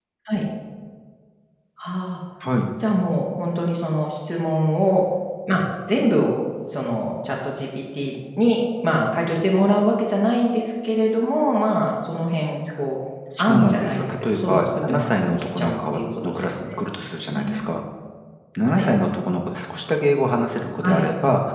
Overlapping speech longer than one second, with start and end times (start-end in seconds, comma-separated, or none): 13.4-16.6